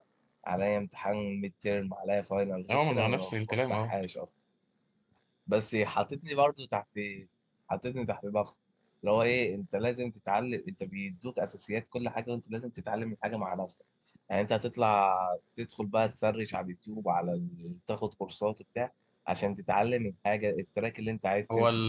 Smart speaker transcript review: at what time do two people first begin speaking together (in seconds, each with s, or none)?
2.7 s